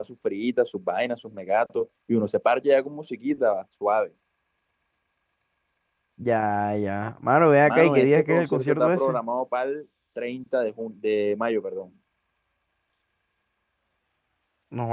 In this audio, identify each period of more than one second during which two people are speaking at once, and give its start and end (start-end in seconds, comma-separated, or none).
7.7-9.2